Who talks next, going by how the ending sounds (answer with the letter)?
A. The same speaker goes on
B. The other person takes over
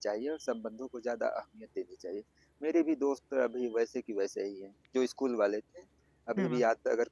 A